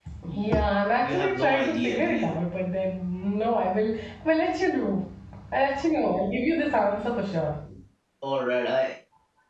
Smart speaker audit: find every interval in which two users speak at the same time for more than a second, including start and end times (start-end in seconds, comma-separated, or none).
1.0-2.4